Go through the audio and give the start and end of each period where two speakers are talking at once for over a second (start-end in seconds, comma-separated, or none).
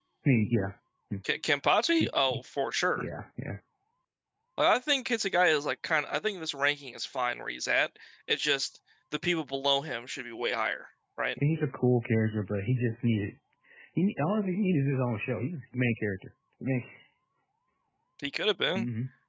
none